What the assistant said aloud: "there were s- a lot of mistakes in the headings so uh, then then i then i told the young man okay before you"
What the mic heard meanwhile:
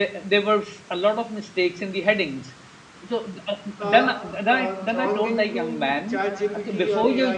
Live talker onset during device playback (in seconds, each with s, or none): 3.8 s